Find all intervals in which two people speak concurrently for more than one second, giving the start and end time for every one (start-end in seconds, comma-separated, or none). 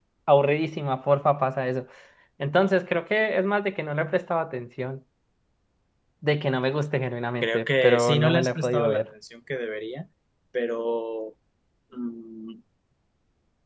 7.4-9.0